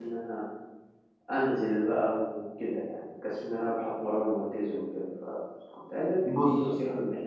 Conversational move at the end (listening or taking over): listening